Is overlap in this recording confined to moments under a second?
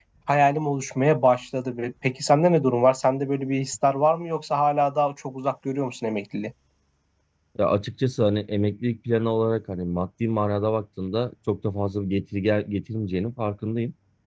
Yes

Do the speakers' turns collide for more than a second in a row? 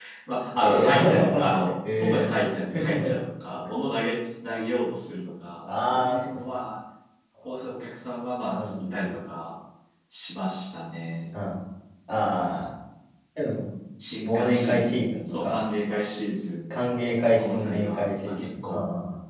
Yes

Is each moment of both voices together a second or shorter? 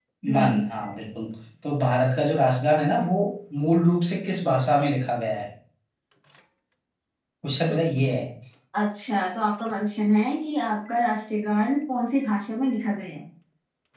Yes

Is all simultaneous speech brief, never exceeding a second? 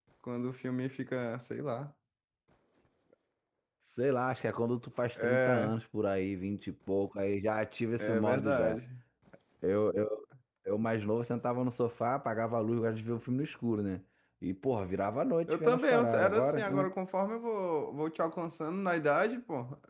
No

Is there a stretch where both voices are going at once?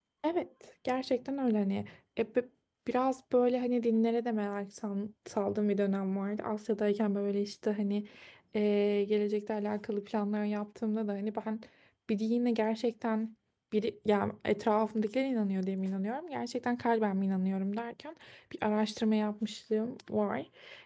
No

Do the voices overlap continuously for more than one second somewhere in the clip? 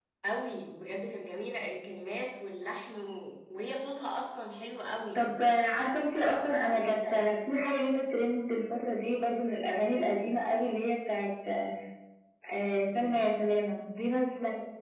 No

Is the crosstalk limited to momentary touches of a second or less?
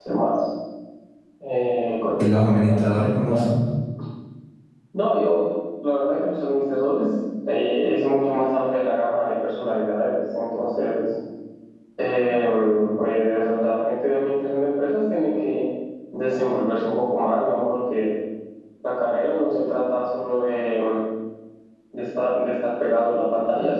No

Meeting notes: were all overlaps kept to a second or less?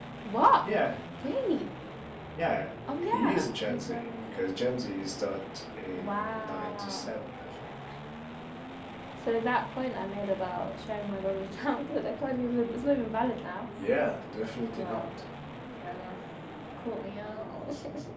No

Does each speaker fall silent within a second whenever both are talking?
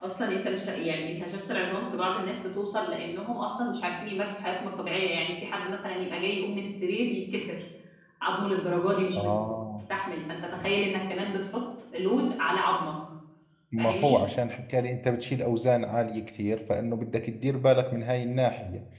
Yes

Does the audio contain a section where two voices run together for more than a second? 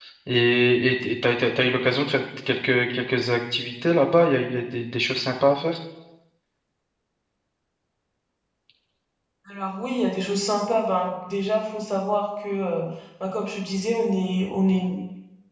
No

